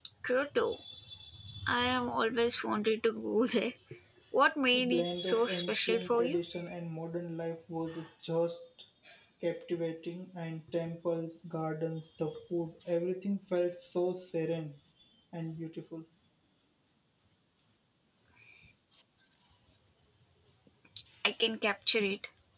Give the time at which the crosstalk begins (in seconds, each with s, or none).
4.7 s